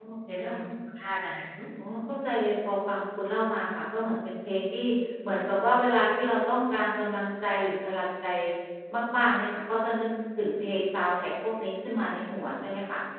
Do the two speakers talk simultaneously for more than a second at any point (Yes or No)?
No